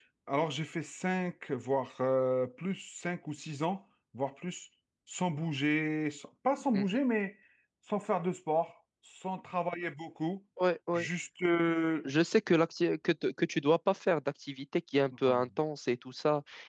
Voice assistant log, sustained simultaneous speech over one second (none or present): none